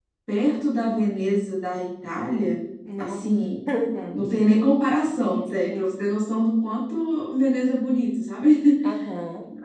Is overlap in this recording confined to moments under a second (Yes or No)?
Yes